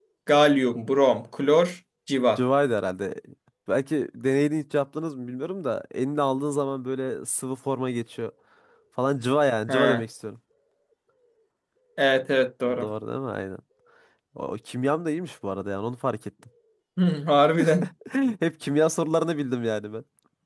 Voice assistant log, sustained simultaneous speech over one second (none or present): none